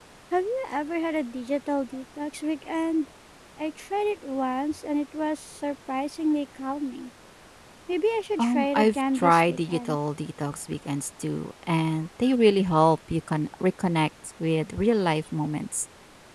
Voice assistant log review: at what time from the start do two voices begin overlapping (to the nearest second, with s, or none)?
8 s